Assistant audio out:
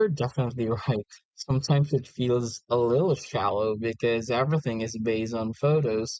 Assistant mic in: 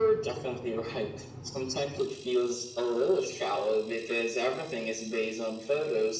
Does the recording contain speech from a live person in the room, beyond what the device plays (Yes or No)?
No